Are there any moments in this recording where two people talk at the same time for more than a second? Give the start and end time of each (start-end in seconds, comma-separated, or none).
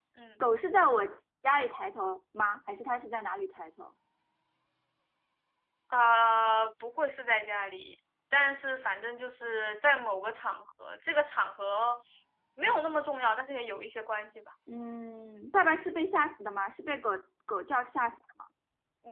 none